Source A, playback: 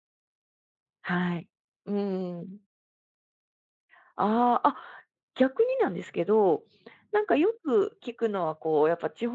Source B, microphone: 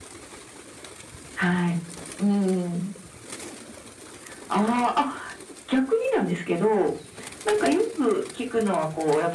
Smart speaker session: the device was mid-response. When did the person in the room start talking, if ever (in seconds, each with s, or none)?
none